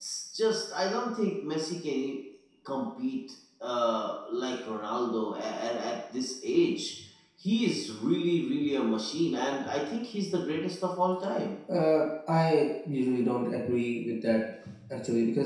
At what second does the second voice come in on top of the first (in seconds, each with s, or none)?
none